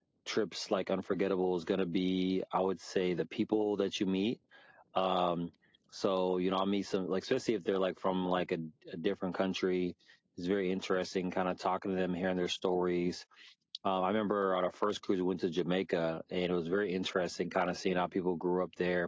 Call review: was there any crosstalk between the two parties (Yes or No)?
No